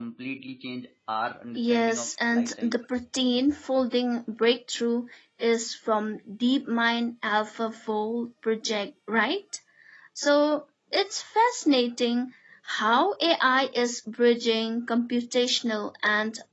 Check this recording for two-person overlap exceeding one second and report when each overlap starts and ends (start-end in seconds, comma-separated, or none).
1.6-2.8